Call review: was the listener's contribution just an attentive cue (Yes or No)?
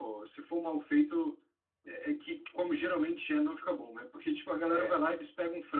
Yes